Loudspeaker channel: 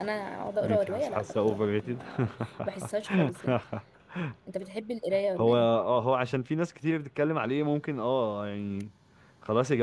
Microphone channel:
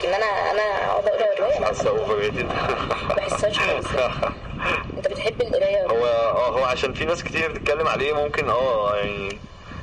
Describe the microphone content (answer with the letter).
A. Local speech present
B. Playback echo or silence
B